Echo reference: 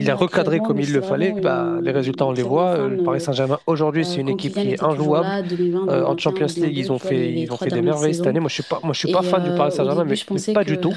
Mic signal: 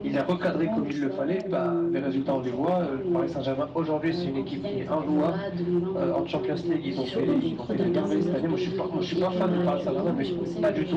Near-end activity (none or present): present